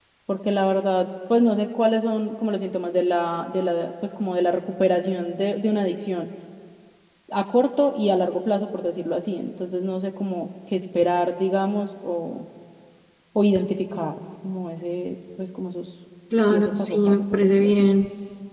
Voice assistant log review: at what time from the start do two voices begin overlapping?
16.3 s

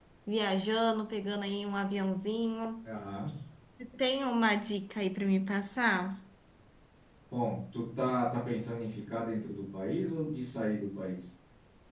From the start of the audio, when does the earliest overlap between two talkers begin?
none

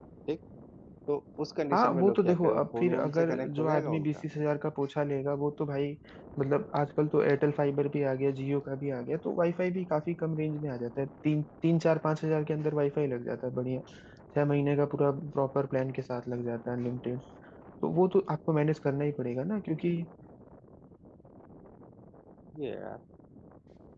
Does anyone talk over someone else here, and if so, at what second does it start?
1.7 s

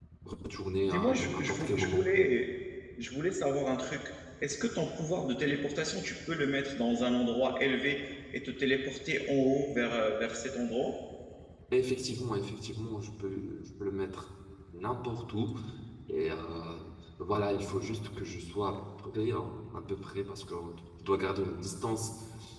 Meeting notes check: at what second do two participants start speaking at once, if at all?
0.8 s

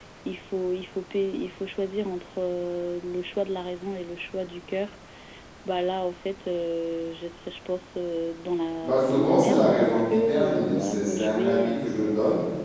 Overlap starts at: 8.8 s

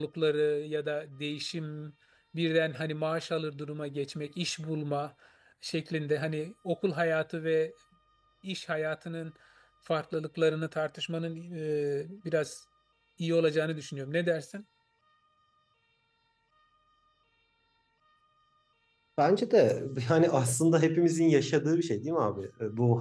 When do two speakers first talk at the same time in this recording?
none

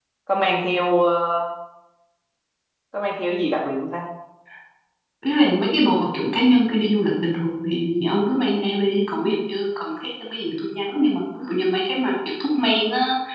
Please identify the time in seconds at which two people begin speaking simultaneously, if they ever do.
none

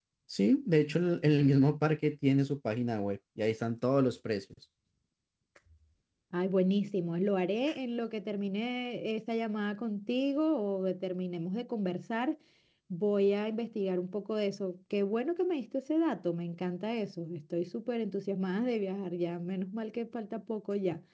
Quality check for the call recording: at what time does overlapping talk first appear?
none

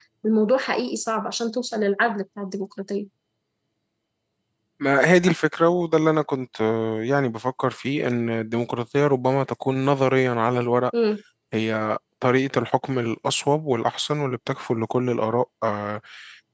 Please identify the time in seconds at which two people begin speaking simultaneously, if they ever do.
none

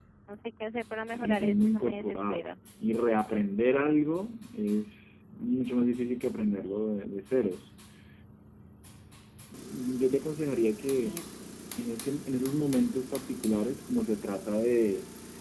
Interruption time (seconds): 1.1 s

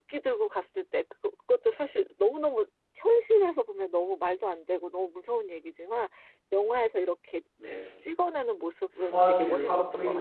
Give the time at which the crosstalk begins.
8.9 s

